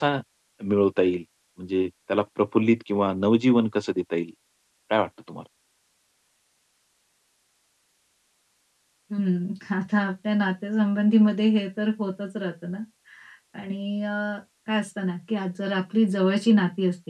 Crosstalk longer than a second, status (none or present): none